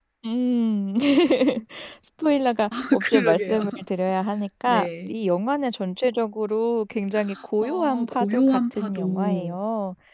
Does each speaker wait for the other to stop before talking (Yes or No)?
No